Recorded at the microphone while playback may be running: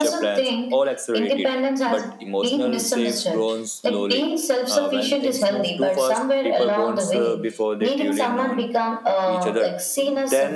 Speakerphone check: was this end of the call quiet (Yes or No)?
No